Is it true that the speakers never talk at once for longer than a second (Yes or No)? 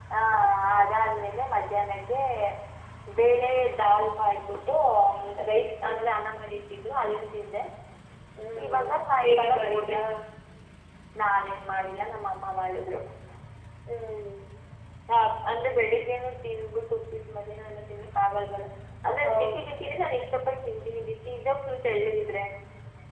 No